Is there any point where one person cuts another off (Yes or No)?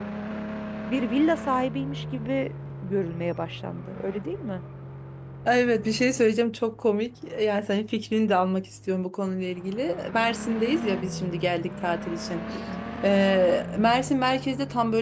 No